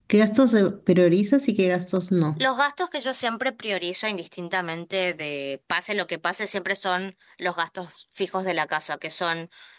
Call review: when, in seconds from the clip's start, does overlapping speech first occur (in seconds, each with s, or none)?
none